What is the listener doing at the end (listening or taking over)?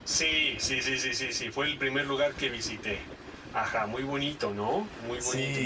taking over